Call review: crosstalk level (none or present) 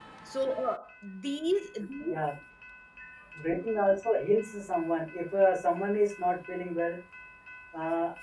none